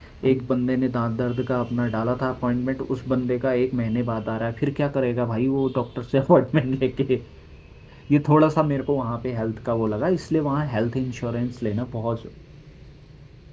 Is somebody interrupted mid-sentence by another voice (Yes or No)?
No